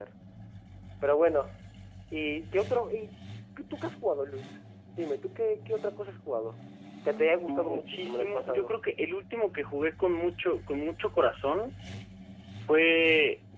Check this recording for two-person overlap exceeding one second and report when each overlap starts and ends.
7.5-8.7

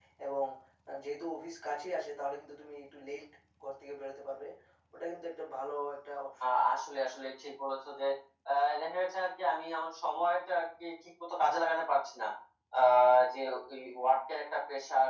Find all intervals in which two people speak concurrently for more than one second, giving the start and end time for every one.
none

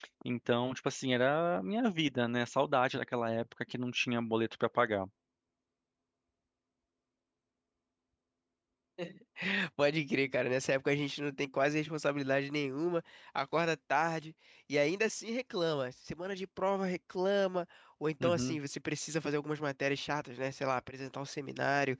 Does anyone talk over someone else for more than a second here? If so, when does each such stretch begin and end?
none

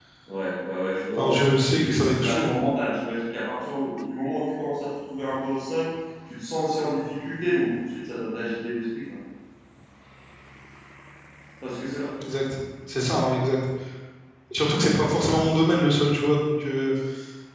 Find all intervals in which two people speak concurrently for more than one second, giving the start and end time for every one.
1.2-2.5

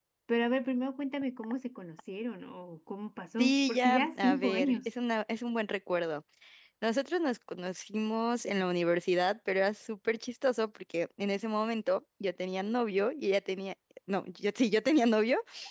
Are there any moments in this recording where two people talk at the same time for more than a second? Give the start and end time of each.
3.4-4.9

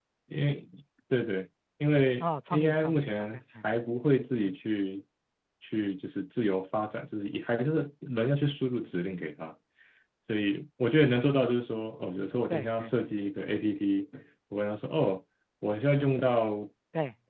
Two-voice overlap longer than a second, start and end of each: 2.2-3.6

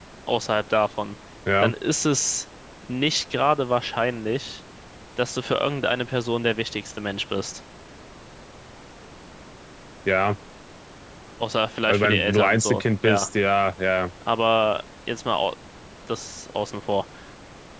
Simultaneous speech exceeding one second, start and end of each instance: 11.9-13.3

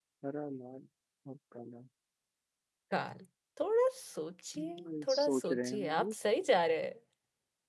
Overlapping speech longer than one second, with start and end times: 4.6-6.1

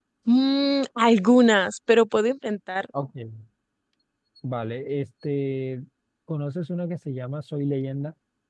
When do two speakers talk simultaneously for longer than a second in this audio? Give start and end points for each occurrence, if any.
none

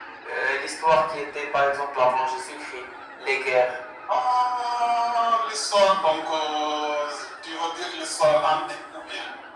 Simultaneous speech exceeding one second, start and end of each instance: none

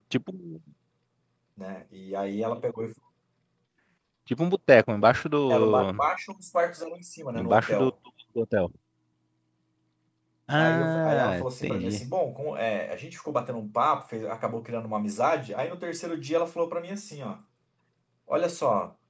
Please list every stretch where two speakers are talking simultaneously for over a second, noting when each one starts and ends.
10.6-12.0

